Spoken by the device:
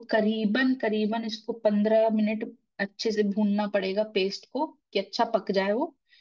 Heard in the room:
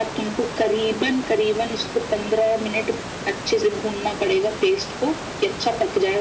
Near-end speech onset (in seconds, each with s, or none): none